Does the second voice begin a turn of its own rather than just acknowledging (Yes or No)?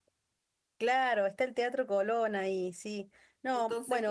Yes